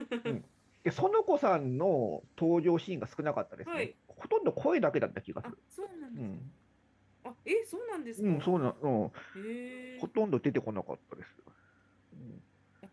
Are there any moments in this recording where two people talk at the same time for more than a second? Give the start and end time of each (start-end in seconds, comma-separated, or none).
none